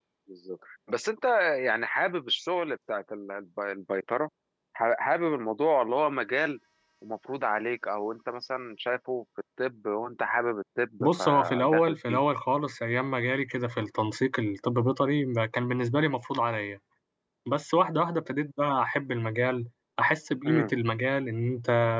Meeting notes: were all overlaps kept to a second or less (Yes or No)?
No